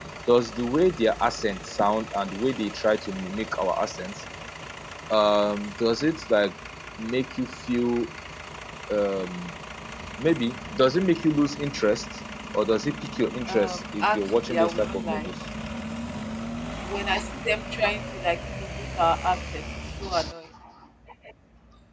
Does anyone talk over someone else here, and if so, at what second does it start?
13.5 s

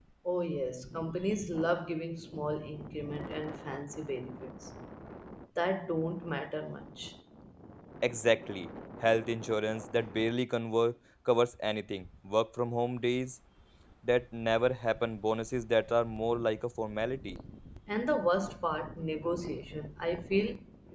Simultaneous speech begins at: none

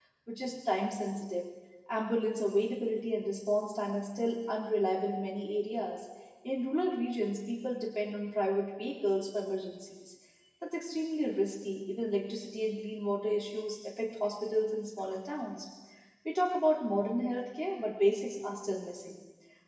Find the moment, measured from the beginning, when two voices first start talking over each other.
none

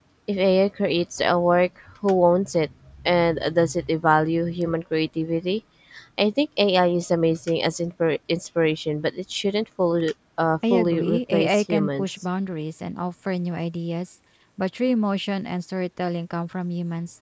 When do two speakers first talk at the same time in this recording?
10.6 s

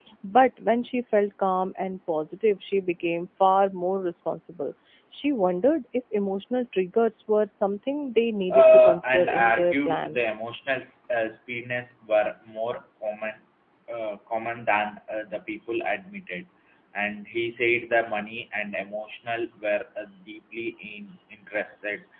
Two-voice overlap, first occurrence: 8.5 s

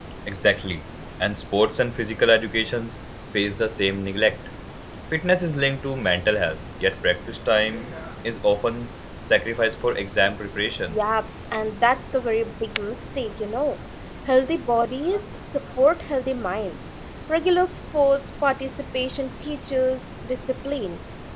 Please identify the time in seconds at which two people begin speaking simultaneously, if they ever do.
none

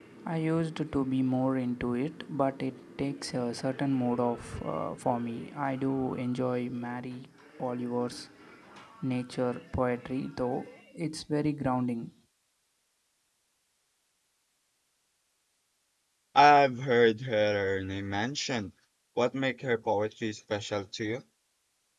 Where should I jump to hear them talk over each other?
none

